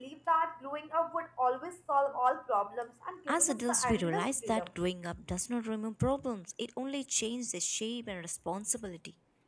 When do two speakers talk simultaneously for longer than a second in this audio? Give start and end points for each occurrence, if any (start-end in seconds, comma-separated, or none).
3.3-4.7